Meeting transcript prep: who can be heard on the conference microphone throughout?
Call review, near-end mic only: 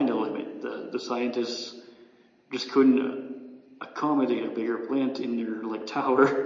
echo only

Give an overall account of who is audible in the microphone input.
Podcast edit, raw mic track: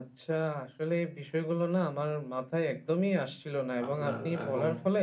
both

